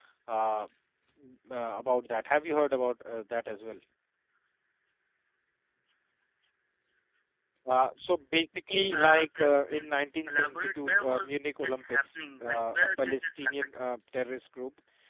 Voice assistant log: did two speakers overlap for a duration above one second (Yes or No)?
Yes